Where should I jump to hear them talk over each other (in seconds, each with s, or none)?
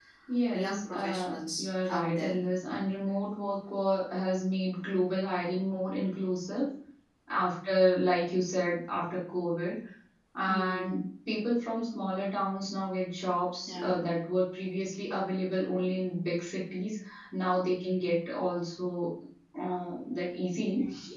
0.5 s